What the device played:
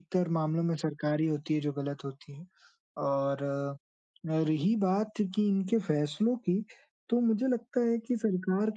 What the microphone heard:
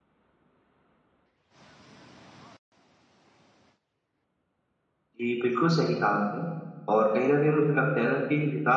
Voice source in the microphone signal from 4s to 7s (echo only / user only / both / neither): user only